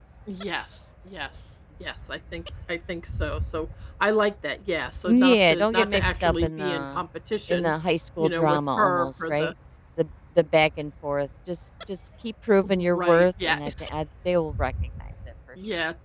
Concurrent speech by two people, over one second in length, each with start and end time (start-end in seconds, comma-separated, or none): 5.0-7.0, 8.2-9.5, 12.6-13.9